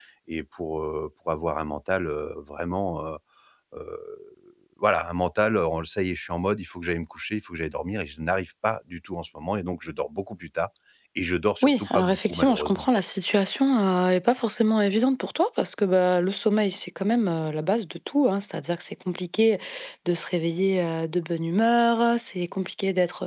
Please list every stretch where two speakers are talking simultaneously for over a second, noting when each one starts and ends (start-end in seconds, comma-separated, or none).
11.6-12.9